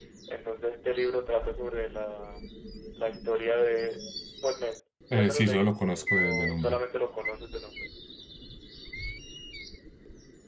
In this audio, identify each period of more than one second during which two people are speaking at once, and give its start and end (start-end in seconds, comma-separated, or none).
5.1-6.8